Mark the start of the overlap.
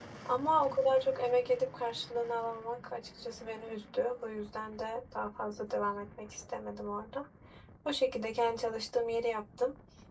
none

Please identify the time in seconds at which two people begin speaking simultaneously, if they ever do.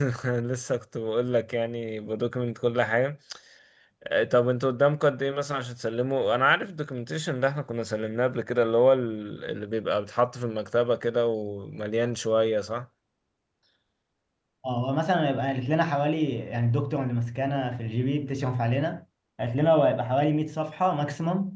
none

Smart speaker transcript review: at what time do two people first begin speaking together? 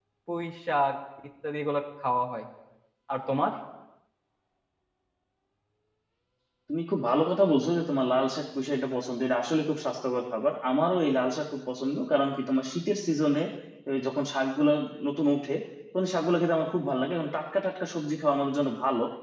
none

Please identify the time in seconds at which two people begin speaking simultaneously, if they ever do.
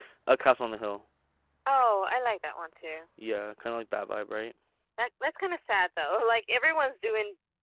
none

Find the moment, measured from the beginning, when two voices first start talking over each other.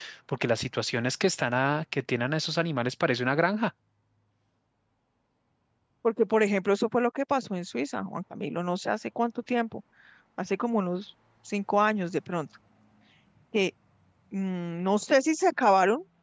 none

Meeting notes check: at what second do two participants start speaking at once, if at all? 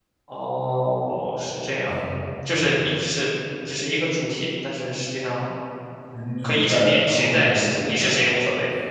6.4 s

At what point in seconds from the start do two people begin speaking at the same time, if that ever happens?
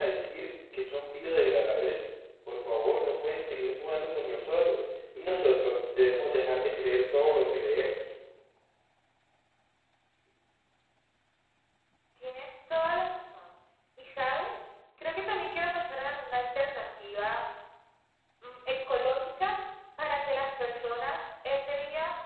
none

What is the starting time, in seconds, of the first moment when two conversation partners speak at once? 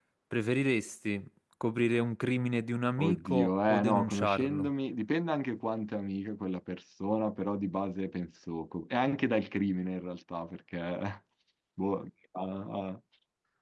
3.0 s

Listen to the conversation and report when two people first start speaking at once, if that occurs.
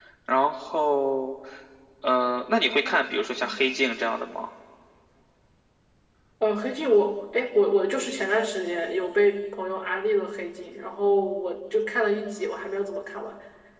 none

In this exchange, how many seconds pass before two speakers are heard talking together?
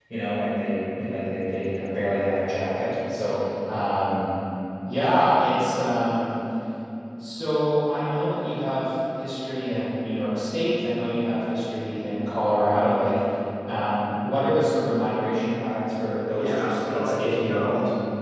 16.3 s

